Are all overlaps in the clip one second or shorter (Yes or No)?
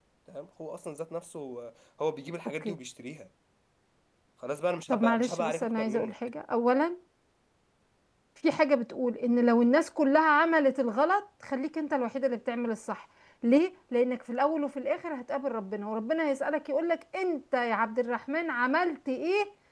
No